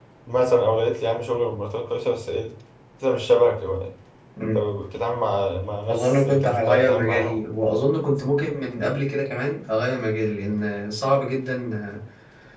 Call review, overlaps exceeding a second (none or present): present